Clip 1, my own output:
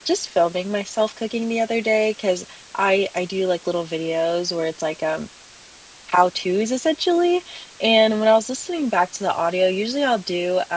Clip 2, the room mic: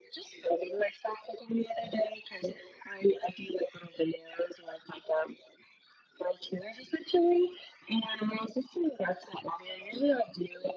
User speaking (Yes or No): No